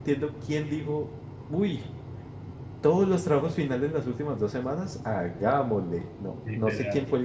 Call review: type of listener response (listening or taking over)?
listening